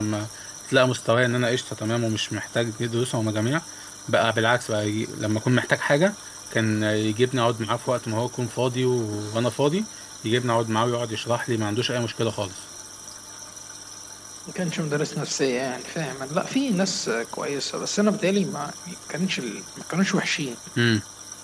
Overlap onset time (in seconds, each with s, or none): none